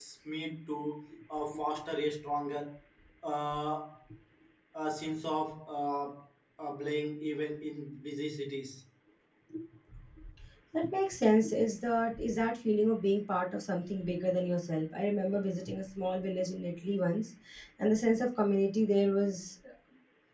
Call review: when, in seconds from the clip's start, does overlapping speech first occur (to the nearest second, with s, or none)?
none